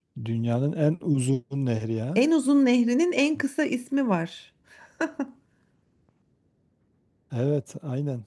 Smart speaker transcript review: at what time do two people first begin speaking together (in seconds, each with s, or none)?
none